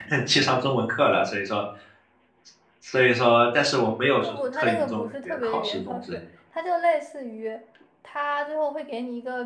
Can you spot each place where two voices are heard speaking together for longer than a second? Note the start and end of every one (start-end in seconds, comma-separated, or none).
4.2-6.2